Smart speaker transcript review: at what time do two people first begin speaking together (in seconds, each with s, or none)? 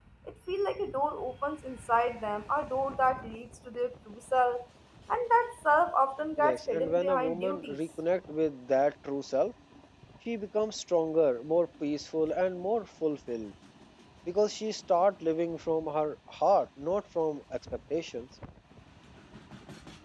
6.4 s